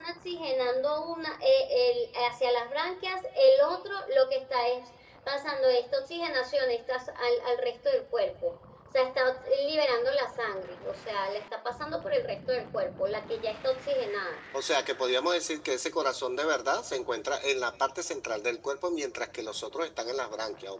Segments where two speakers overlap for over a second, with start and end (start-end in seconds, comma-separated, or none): none